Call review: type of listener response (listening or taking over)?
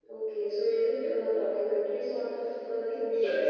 taking over